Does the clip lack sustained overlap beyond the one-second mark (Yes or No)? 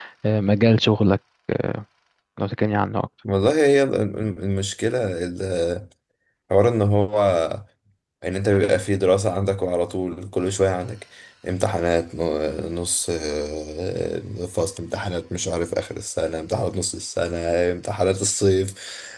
Yes